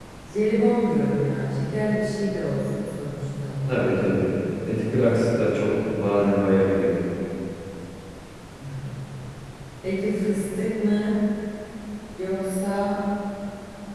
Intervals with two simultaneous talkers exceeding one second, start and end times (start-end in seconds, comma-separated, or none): none